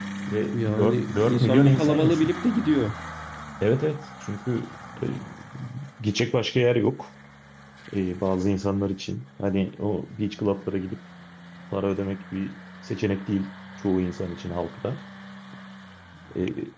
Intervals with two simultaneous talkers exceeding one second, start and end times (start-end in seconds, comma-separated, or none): 0.5-2.4